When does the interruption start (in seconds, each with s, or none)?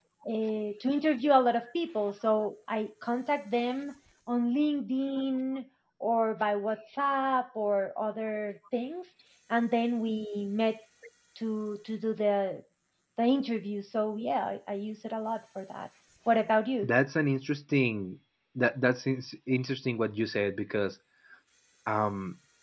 none